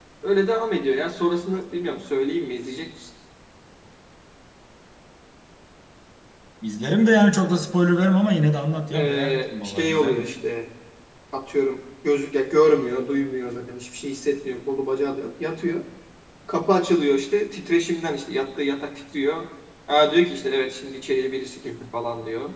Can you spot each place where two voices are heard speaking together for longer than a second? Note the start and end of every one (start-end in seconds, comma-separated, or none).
8.9-10.3